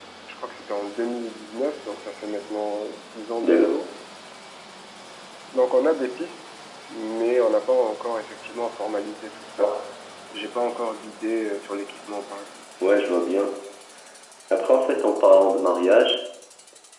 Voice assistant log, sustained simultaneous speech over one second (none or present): none